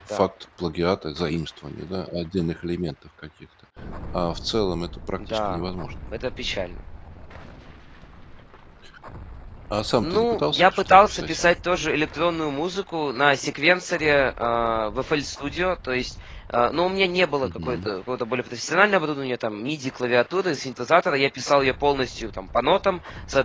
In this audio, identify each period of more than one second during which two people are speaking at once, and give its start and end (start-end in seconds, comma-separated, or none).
10.0-11.4